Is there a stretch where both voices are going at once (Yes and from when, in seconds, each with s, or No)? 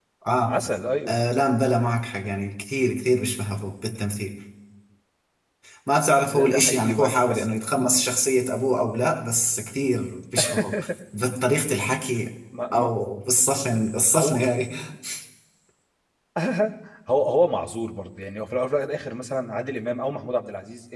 Yes, from 6.3 s